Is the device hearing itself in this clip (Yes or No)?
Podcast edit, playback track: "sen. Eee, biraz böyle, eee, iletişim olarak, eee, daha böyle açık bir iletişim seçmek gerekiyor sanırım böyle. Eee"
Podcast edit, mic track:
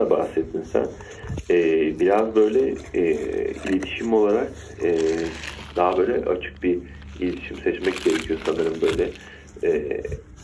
Yes